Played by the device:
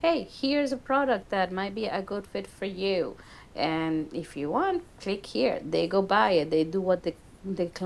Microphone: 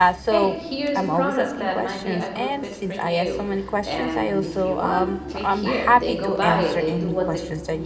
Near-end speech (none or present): present